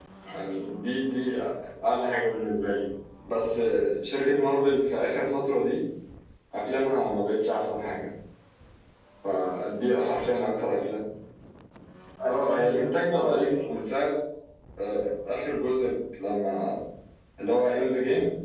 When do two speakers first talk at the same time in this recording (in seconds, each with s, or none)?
12.2 s